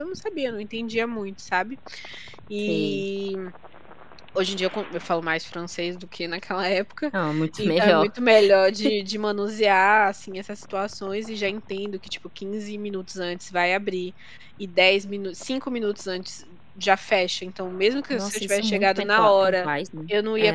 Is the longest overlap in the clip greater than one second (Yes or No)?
Yes